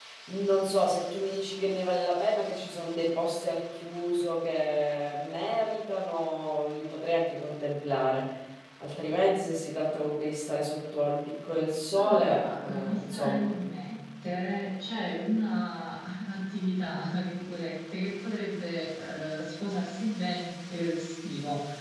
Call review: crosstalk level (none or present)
present